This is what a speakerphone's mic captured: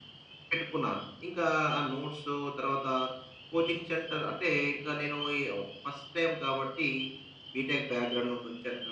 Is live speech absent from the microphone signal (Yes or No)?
Yes